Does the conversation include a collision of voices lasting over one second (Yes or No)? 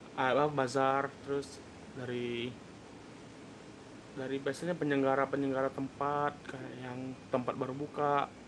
No